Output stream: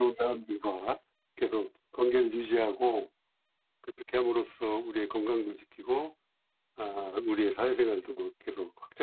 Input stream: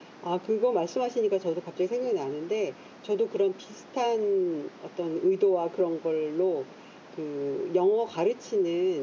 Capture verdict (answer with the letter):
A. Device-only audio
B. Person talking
B